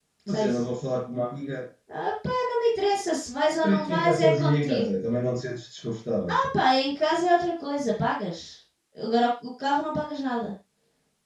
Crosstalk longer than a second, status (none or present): present